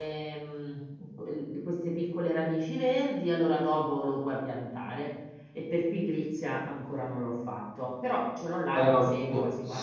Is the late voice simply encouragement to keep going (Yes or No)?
No